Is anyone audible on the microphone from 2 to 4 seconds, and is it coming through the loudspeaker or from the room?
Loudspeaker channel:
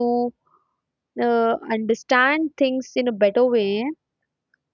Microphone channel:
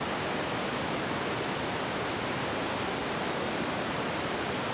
neither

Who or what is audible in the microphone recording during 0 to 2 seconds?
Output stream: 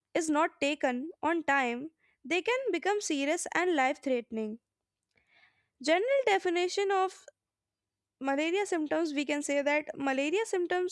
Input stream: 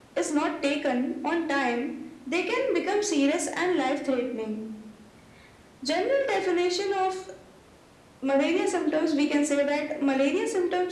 echo only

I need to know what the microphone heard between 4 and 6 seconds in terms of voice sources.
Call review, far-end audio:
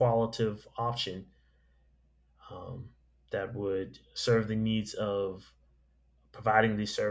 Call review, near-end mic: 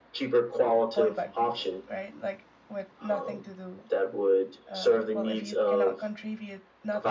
both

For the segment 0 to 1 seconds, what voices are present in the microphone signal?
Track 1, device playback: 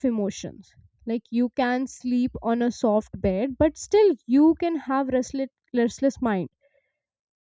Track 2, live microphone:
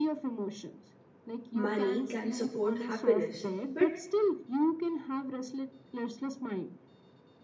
echo only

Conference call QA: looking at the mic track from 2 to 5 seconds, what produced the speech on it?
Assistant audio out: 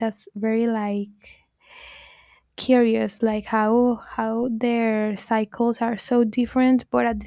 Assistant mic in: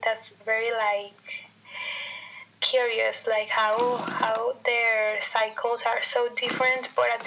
echo only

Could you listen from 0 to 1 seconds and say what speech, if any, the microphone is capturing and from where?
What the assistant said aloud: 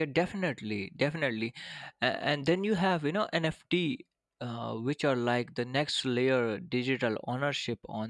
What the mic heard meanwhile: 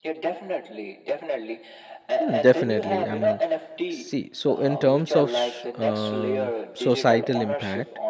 echo only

